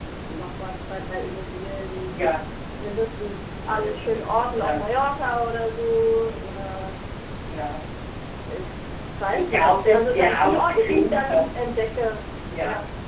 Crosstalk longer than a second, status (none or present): present